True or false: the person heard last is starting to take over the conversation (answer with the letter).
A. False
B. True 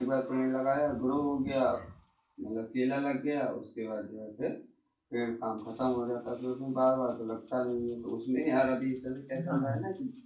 A